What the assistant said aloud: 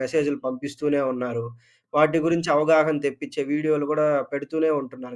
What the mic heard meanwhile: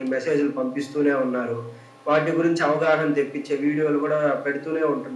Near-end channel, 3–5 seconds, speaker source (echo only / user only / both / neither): echo only